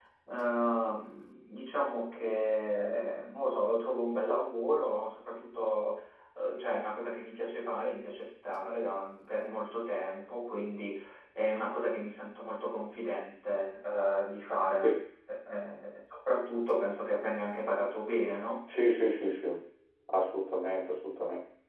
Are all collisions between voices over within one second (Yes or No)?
Yes